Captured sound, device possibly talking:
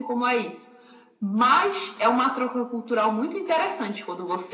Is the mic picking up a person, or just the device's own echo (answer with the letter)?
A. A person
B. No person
B